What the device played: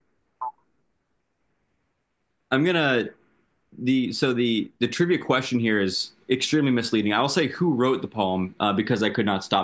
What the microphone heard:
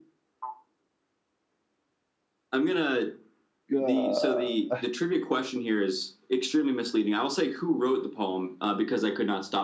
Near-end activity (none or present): present